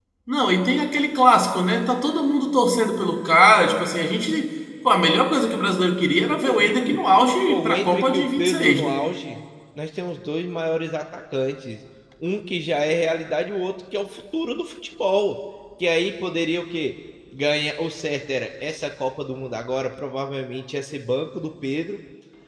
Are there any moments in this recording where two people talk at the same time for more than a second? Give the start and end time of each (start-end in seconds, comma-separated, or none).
7.5-9.0